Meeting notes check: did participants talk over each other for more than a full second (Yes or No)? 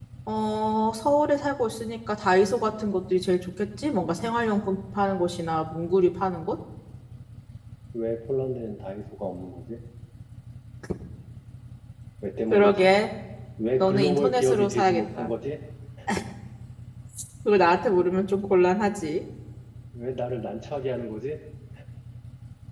Yes